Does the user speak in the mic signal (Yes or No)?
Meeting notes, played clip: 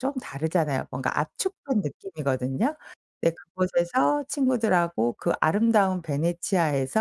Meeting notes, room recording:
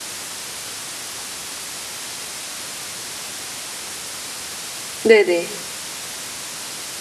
Yes